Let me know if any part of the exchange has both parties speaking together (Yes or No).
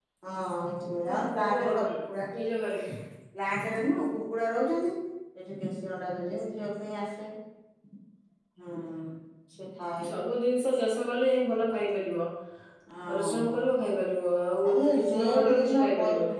Yes